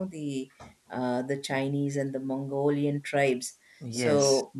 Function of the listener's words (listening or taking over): taking over